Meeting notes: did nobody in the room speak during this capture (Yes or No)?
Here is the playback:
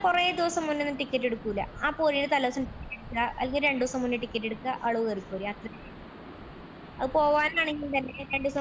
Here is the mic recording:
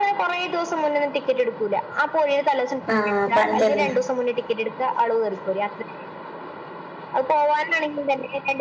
No